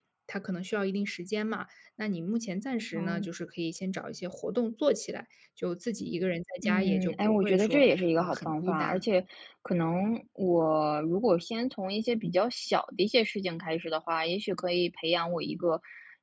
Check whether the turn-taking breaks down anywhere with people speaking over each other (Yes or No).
Yes